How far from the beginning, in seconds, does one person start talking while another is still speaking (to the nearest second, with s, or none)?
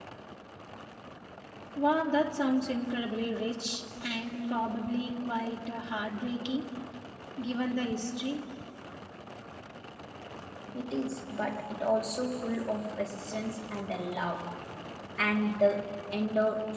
none